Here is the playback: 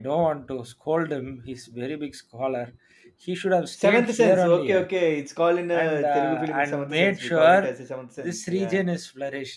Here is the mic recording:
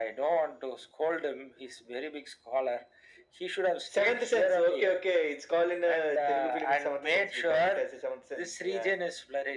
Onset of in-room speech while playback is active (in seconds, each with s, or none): none